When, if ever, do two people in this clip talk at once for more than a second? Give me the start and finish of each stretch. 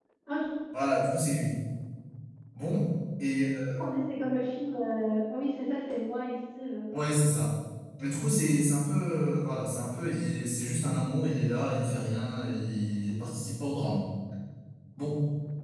none

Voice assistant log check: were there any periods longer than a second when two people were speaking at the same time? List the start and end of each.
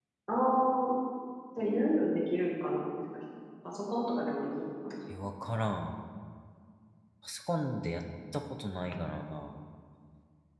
none

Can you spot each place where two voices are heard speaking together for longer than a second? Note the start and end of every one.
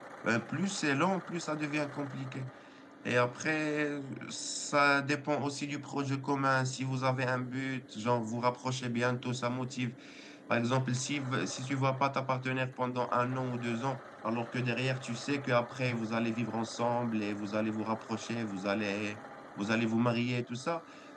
none

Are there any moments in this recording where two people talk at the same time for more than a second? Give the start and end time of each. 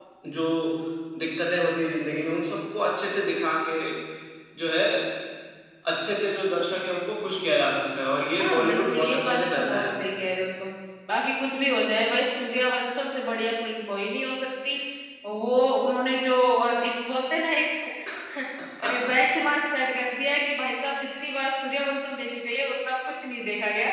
8.4-10.0

